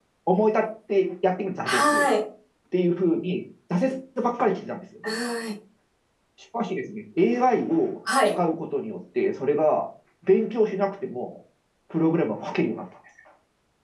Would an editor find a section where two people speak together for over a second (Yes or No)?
No